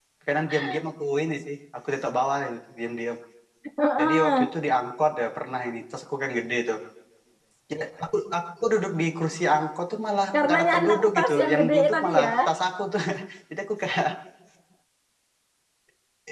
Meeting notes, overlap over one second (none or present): present